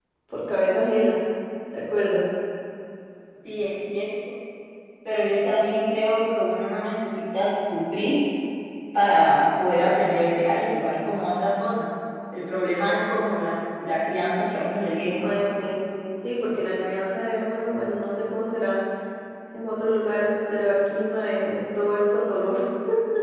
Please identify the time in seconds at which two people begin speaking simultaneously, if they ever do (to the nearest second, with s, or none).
none